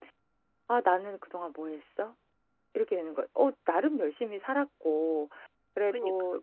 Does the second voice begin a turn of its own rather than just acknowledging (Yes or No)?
No